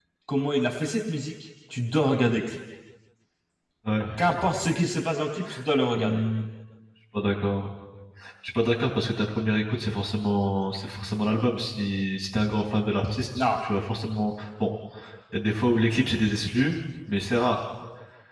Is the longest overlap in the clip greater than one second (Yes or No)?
No